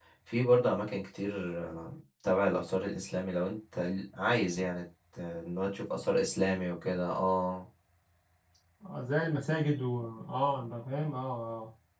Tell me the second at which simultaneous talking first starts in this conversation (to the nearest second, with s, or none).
none